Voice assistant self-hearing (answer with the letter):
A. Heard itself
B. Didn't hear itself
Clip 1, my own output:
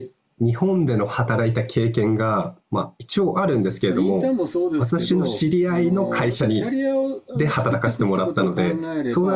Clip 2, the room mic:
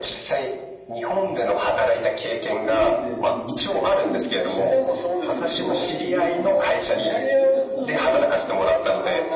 A